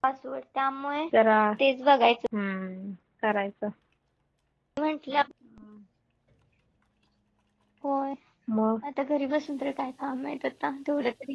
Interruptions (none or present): none